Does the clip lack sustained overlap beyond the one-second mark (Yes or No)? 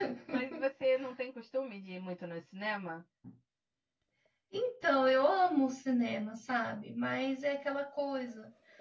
Yes